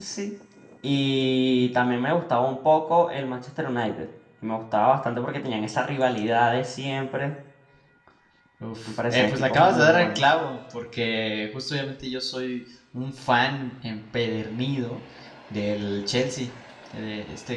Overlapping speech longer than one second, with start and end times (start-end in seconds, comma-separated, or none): 8.9-10.2